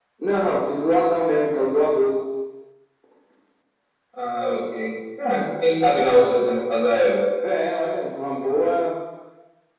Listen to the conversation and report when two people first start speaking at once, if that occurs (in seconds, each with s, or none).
none